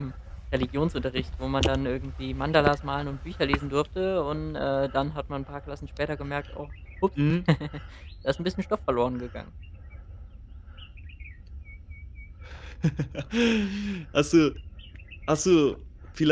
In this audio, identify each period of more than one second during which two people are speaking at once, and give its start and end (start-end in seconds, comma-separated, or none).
none